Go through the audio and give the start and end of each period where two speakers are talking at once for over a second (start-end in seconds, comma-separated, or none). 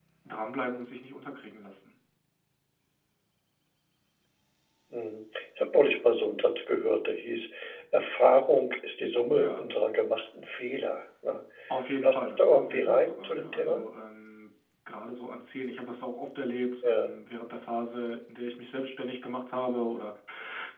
12.0-13.8